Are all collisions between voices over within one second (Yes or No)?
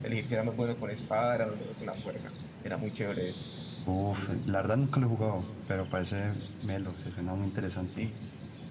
Yes